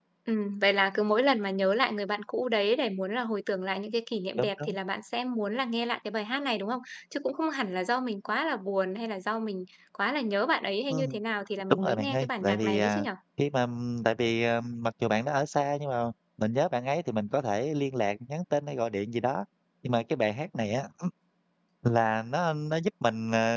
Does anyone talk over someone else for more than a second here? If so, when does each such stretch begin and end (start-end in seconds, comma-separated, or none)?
11.7-13.1